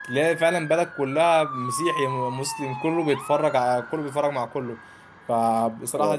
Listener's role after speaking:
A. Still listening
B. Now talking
A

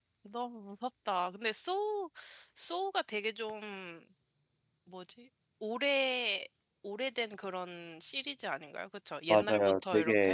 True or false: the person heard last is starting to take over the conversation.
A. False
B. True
B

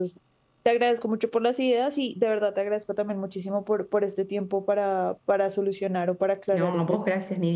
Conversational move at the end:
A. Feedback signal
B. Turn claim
B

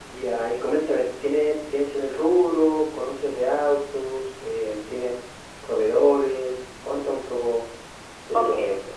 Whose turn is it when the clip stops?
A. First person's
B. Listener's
B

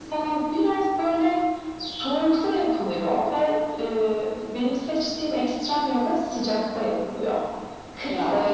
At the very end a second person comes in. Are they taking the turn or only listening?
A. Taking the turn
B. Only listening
B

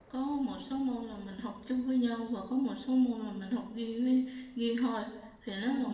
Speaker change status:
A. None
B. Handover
A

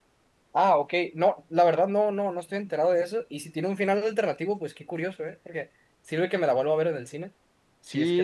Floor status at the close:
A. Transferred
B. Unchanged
A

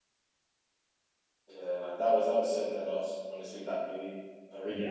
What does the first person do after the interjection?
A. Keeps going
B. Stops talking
B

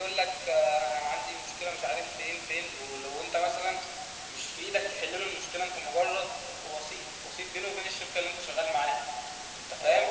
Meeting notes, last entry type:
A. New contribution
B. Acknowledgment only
A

